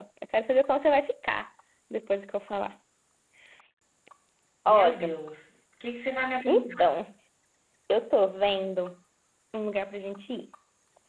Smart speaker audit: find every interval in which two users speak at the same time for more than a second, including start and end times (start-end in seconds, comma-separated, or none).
none